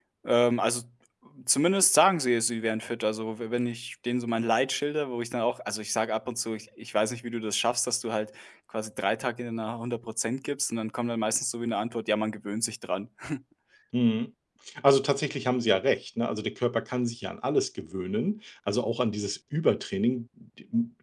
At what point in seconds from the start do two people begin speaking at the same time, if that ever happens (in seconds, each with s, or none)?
none